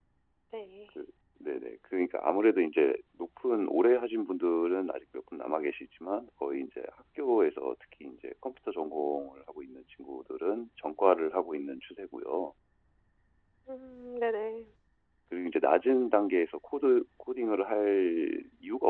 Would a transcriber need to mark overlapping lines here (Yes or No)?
No